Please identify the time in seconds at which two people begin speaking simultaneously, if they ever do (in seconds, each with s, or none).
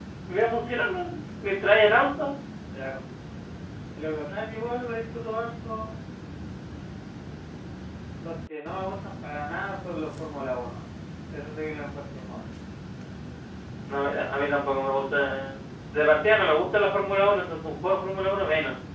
none